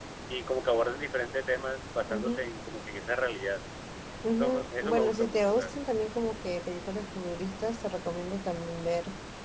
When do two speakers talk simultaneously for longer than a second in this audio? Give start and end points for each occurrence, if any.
4.3-5.8

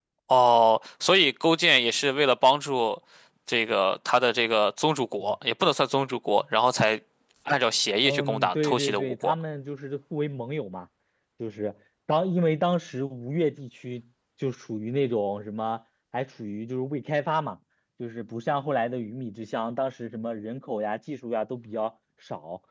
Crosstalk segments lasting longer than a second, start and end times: 8.0-9.3

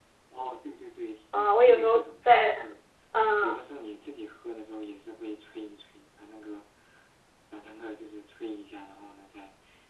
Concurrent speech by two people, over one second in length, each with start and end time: 1.3-2.5

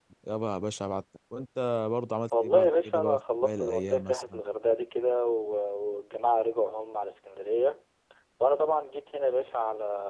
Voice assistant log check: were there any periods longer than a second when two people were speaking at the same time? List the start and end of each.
2.4-4.4

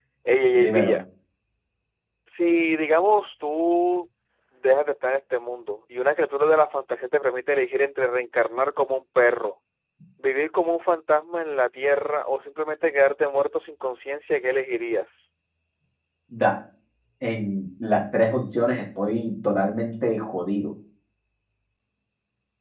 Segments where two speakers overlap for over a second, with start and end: none

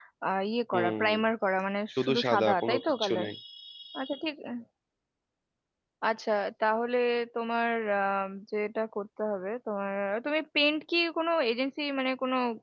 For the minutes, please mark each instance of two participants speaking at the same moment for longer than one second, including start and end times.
1.9-3.3

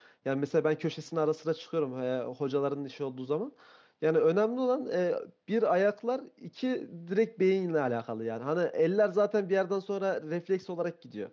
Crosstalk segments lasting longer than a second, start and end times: none

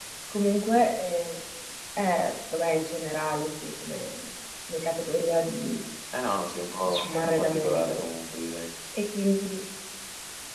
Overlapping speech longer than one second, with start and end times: 6.8-8.1

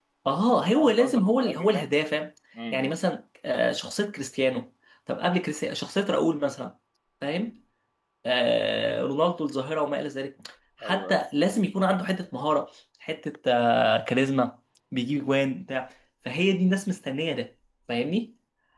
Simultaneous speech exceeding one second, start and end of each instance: 0.8-2.0

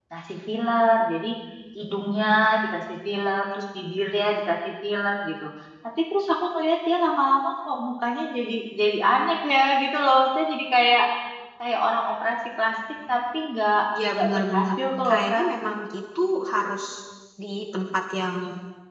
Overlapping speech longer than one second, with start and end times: 14.1-15.5

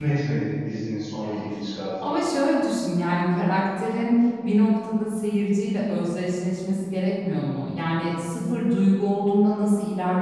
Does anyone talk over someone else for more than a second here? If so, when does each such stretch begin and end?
none

